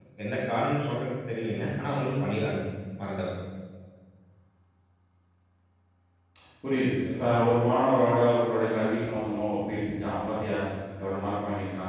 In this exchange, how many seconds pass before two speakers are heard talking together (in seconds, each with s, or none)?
none